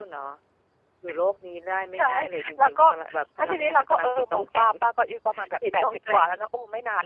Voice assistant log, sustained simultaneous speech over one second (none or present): present